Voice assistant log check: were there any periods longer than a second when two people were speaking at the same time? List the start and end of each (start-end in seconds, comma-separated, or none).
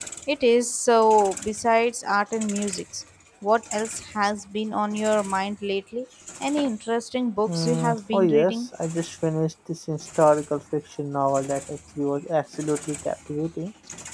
7.5-8.7